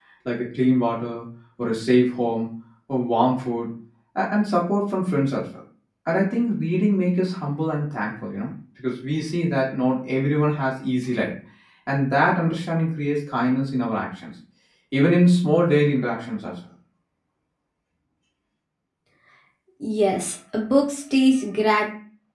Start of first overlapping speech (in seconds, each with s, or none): none